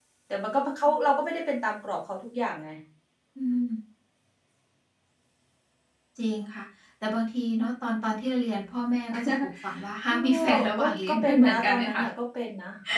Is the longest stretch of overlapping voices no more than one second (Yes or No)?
No